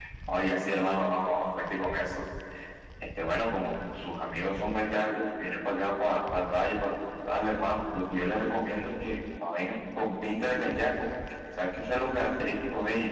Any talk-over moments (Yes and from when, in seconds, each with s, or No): No